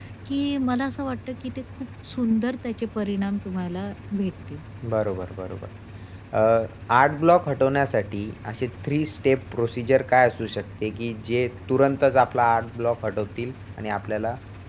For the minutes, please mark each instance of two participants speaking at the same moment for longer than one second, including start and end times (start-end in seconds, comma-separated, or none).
none